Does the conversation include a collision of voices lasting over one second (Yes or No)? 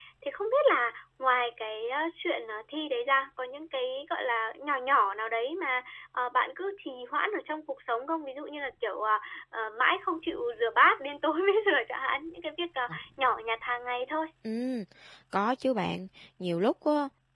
No